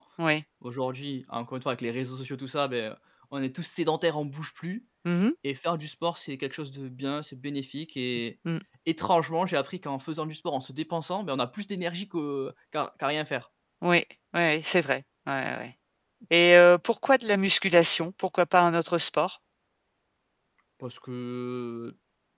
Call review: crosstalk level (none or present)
none